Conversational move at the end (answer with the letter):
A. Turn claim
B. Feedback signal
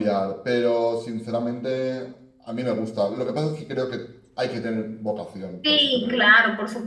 A